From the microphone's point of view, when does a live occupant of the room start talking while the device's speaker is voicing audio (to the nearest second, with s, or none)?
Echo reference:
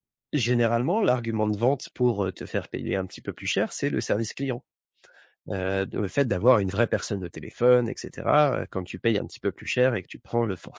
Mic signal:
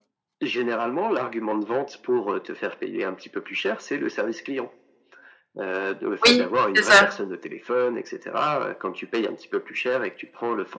6 s